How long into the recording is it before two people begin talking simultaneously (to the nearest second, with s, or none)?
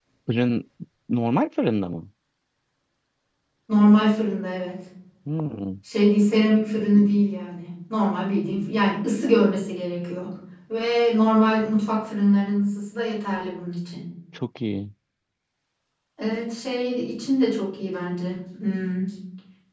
none